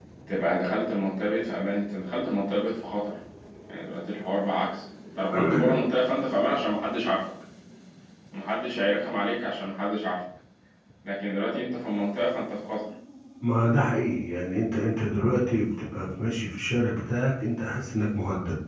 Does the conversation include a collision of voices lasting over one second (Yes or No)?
No